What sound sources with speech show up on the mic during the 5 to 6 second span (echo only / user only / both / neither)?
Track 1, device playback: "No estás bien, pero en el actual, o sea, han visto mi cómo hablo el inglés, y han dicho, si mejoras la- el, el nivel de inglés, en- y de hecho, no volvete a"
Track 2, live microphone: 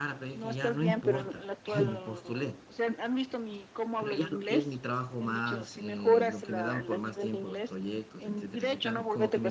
both